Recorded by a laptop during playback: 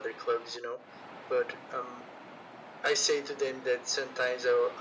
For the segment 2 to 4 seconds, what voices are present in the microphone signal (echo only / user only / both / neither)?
echo only